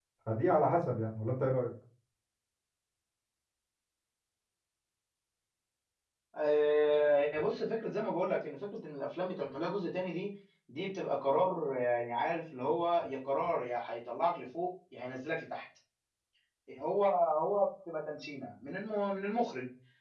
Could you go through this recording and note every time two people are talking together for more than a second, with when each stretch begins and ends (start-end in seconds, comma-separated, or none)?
none